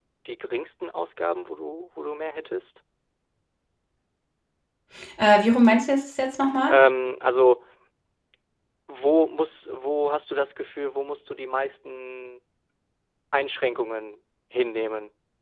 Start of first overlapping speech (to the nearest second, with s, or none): none